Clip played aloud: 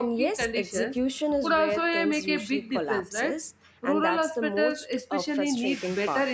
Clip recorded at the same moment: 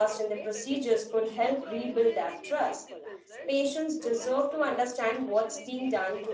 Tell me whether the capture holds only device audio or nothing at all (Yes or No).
No